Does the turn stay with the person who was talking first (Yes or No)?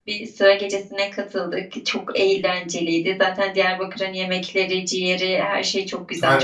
No